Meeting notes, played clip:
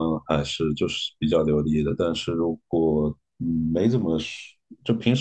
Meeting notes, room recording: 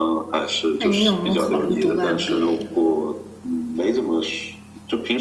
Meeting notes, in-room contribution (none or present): present